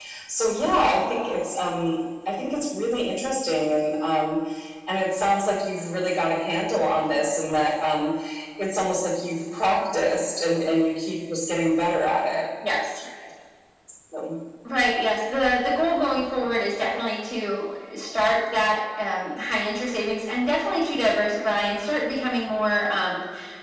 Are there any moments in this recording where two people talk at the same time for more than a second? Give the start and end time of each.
none

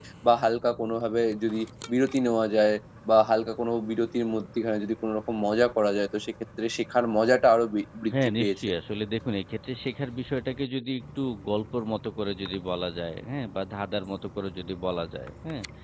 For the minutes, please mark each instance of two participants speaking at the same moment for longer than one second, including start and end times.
none

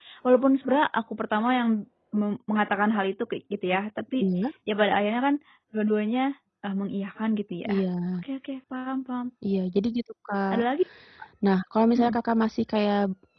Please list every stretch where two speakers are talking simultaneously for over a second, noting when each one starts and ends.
none

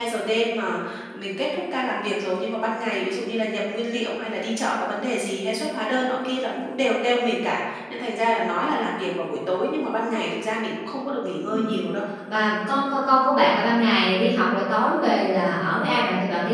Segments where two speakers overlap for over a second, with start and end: none

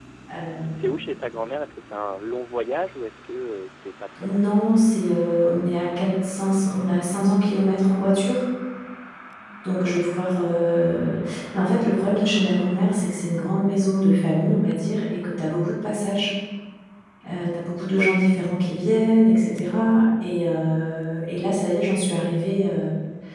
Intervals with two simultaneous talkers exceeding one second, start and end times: none

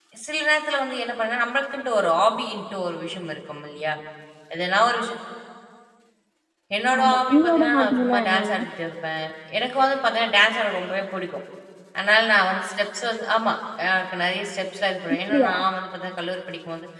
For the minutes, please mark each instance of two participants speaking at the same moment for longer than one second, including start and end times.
7.0-8.6

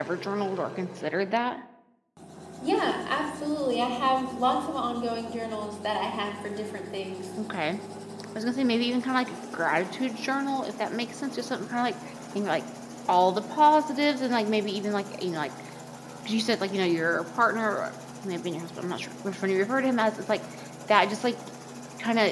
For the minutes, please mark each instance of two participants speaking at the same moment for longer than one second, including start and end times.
none

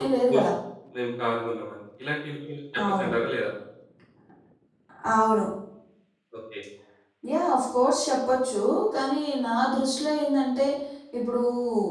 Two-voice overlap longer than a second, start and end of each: none

